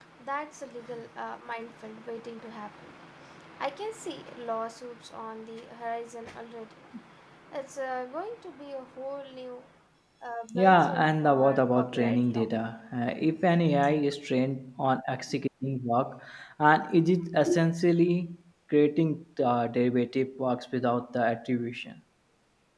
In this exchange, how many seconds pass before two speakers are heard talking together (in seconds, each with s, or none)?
10.5 s